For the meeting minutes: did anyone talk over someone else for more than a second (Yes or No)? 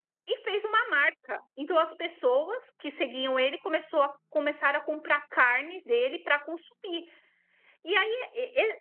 No